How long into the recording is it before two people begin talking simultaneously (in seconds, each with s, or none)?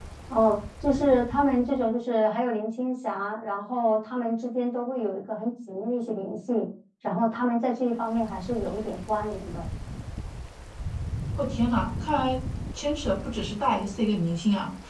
none